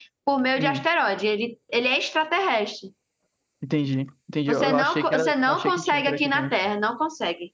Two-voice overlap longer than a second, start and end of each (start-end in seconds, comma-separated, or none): 4.5-6.5